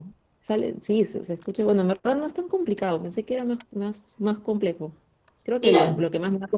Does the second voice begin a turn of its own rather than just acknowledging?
No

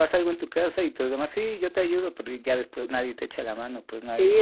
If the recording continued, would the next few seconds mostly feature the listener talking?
Yes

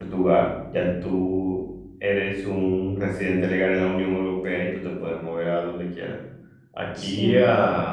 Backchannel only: Yes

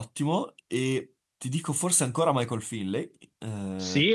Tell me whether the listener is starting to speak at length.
Yes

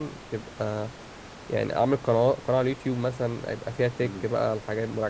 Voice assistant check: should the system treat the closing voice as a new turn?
No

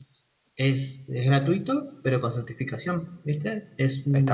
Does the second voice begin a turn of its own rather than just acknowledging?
Yes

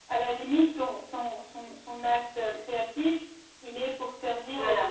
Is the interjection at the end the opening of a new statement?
No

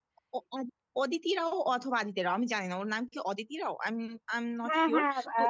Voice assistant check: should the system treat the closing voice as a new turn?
Yes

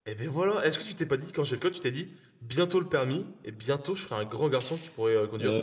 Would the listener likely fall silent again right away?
No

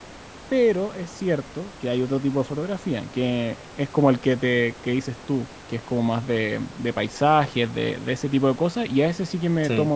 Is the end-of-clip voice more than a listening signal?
No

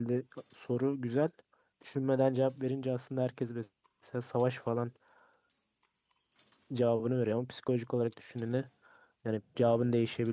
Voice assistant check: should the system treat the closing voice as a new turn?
No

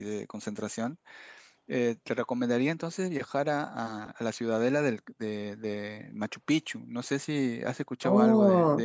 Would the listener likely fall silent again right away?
No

